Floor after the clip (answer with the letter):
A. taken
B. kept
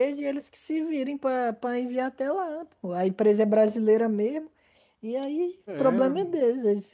B